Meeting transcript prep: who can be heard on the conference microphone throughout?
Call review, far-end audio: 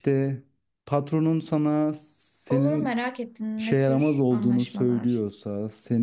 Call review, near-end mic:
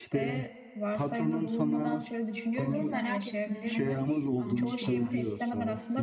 both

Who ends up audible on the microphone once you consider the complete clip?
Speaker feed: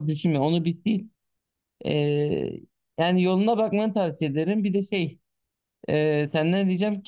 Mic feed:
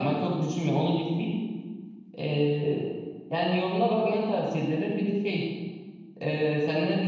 echo only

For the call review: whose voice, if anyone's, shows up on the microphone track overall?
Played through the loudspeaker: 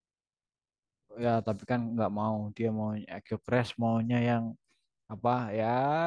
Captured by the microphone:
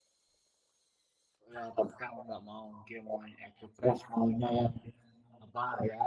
echo only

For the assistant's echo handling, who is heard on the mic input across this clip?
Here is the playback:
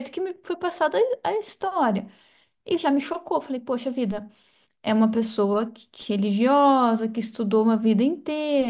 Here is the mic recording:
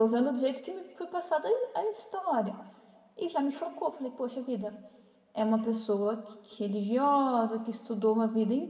echo only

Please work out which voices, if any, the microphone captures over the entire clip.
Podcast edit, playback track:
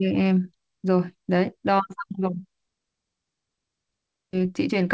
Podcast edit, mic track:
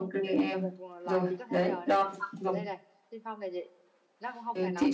both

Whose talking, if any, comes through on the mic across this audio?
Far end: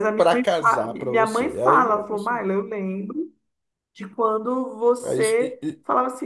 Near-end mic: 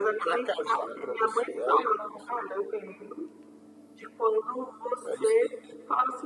echo only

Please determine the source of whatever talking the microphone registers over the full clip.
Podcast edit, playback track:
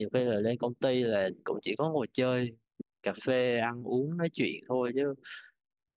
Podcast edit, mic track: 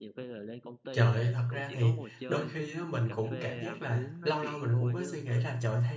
both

